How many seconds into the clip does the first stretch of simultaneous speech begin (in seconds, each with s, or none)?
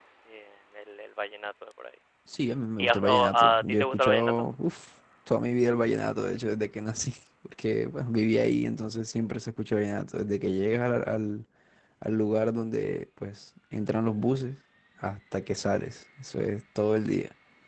2.8 s